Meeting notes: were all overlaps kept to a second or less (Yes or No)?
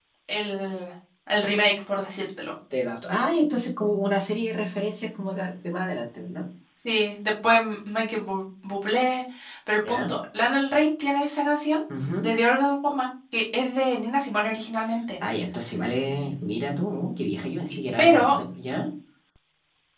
Yes